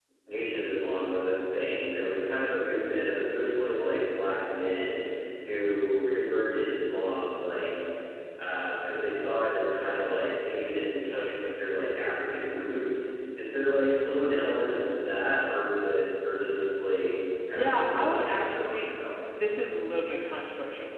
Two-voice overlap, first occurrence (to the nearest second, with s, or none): 18 s